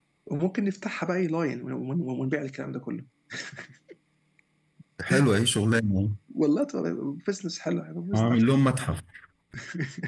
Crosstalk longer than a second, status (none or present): none